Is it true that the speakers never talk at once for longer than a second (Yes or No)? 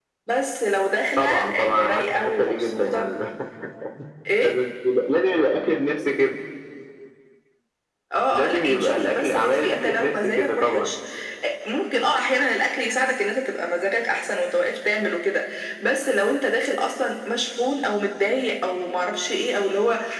No